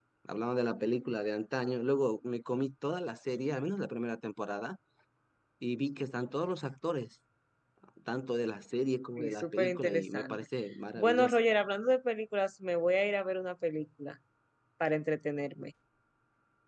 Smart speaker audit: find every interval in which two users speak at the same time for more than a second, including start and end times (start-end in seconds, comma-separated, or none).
9.2-10.4